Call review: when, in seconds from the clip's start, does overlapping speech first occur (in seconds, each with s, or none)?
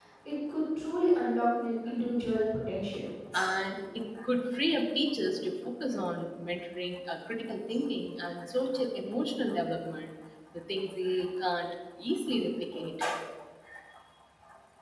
none